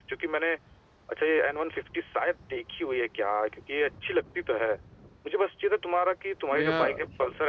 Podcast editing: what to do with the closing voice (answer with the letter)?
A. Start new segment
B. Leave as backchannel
B